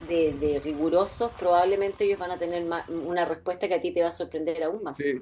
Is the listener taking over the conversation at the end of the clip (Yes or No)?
Yes